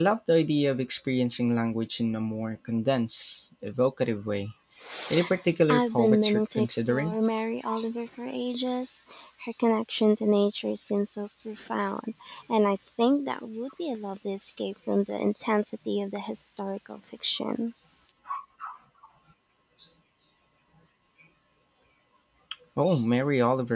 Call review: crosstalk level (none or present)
present